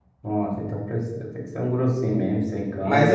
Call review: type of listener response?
taking over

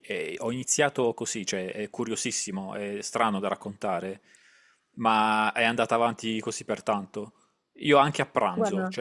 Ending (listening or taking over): listening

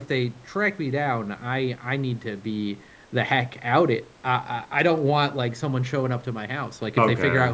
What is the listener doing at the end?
listening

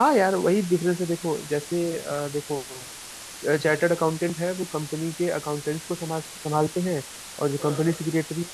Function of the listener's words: listening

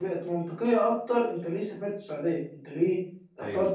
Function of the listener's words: listening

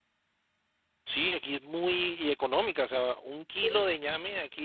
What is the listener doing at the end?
listening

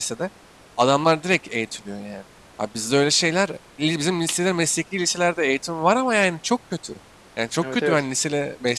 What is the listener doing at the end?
listening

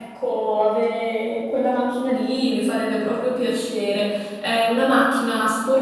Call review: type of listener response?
listening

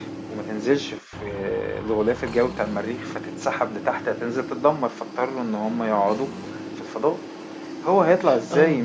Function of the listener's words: listening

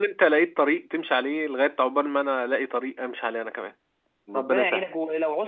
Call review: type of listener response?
taking over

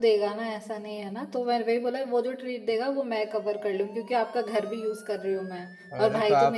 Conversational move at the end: taking over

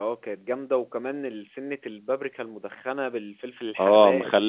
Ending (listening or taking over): taking over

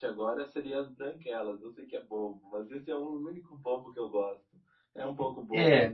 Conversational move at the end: taking over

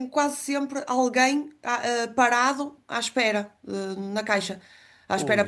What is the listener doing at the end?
taking over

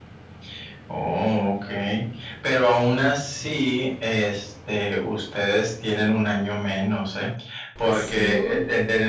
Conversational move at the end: listening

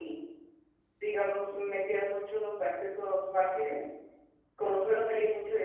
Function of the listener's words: listening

